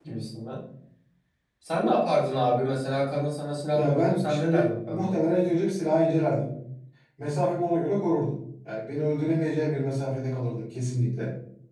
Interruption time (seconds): 3.7 s

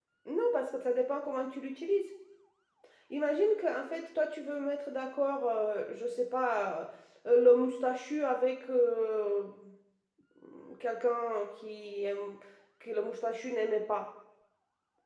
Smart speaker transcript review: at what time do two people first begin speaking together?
none

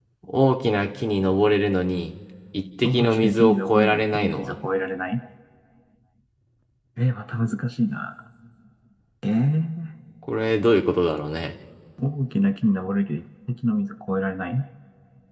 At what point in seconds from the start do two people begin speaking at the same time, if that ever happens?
2.8 s

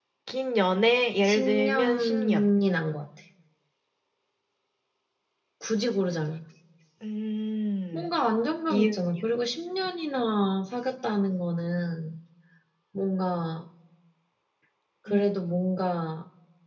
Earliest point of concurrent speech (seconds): 1.2 s

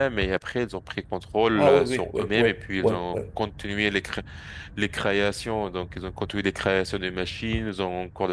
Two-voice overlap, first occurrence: 1.6 s

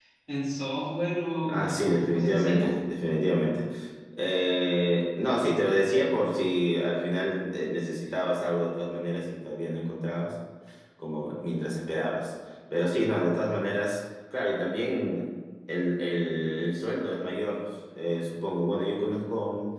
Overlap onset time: 1.4 s

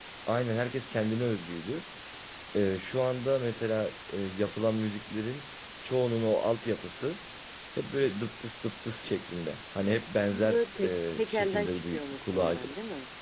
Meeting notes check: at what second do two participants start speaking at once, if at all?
10.3 s

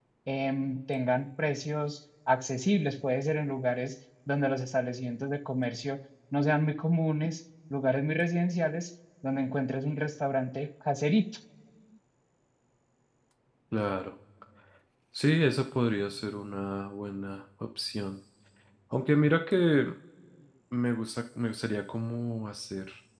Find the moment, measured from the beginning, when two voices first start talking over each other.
none

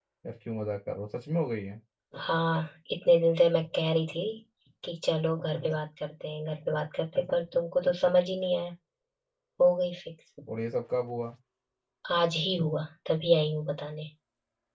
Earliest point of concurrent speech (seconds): none

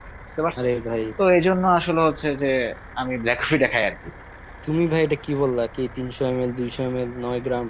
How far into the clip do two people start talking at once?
none

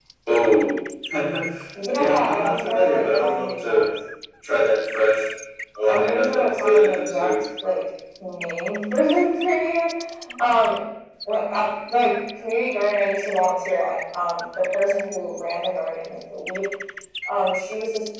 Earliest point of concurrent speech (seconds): 2.0 s

